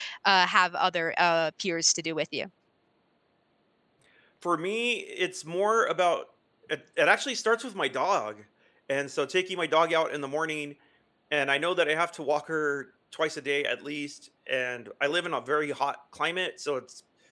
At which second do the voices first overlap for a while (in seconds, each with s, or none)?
none